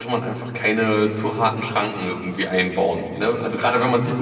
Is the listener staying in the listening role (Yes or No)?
No